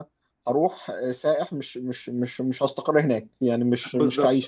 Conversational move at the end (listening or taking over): taking over